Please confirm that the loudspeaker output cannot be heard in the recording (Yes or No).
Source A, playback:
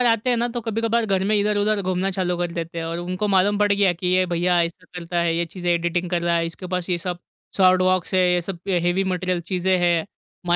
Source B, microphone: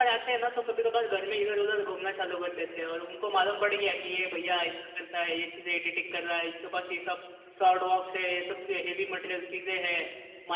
No